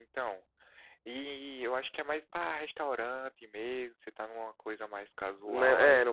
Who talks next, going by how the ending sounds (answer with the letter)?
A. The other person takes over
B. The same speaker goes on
A